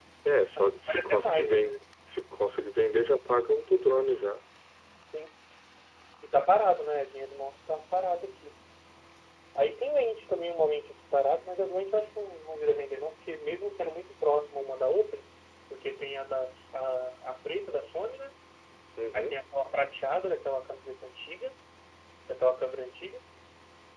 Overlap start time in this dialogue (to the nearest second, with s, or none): 1 s